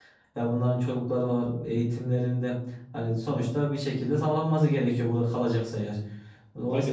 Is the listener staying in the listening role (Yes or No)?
Yes